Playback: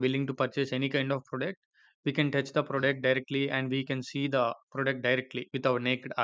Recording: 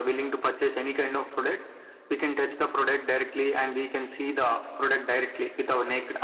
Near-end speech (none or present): none